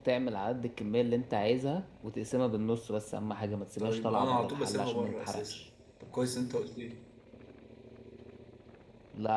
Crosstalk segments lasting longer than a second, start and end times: 3.8-5.6

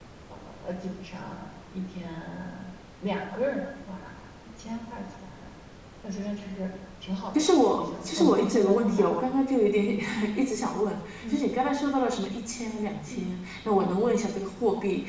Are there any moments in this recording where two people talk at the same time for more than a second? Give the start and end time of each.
7.4-9.2

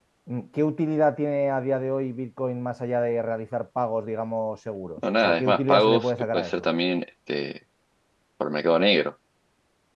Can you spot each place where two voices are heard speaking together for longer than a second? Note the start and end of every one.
5.2-6.6

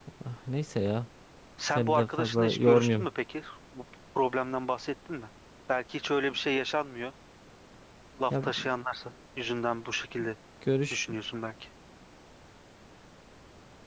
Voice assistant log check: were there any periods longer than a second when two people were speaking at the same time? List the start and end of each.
1.8-3.1

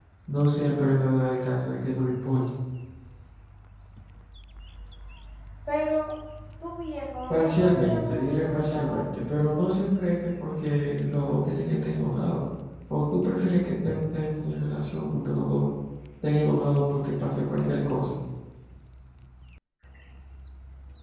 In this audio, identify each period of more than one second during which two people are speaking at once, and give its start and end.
7.3-9.3

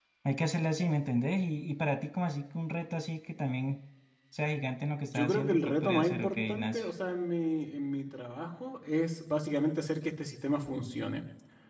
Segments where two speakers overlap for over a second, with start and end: 5.0-6.9

